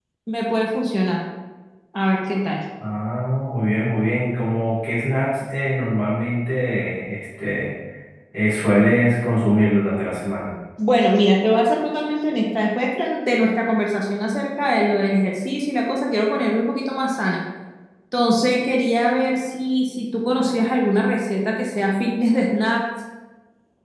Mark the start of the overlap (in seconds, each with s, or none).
none